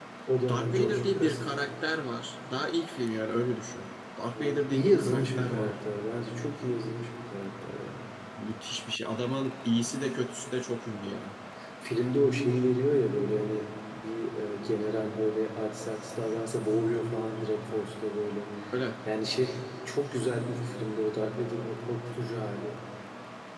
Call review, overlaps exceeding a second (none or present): present